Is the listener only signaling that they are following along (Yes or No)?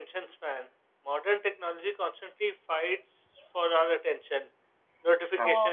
Yes